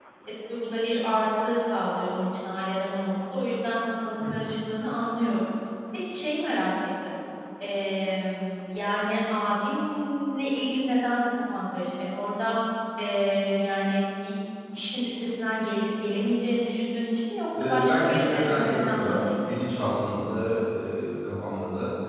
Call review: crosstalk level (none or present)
present